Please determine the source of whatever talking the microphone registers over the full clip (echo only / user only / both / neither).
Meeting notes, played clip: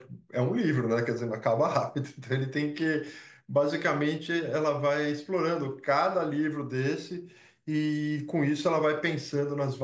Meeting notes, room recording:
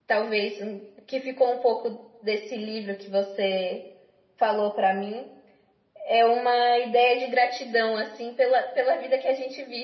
user only